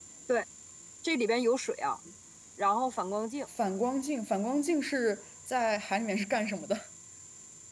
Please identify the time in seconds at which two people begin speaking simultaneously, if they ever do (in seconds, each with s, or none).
none